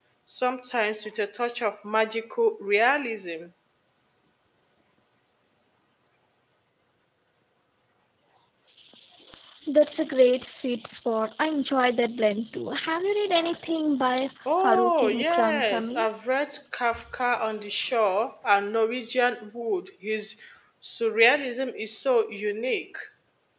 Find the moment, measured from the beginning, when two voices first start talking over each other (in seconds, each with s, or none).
14.5 s